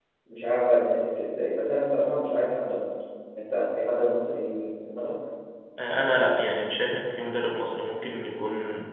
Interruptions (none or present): none